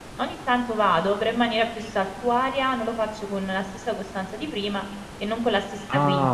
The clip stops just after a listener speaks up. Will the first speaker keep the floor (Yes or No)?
No